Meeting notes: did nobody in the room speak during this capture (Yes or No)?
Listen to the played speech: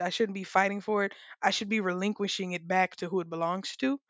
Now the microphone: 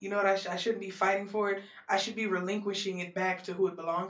Yes